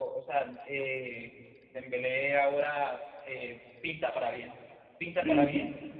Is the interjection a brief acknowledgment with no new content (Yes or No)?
Yes